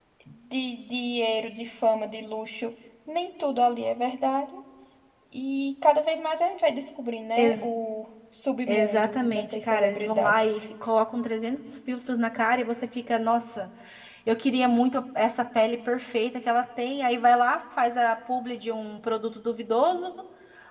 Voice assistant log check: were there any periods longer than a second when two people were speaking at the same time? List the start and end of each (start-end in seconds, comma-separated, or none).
8.7-10.6